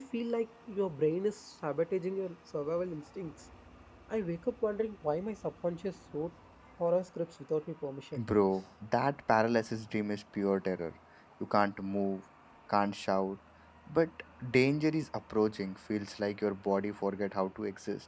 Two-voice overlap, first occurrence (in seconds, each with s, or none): none